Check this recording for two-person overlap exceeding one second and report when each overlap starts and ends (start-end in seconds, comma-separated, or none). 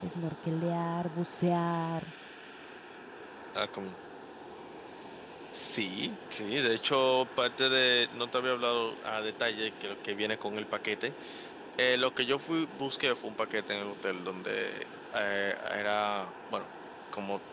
none